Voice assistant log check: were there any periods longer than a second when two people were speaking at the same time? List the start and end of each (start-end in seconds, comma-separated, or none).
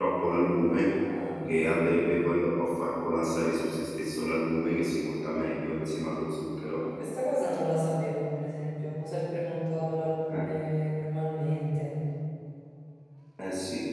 none